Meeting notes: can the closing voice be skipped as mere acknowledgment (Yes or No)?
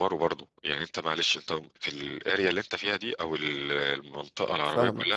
Yes